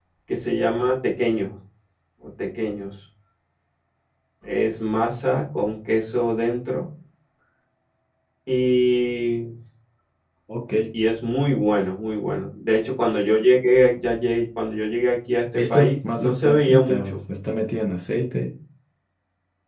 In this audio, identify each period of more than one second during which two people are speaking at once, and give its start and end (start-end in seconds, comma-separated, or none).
15.6-17.2